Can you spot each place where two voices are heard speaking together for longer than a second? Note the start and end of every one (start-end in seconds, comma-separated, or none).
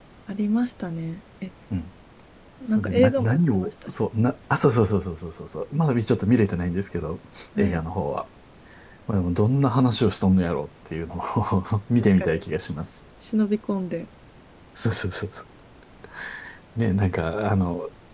2.7-3.9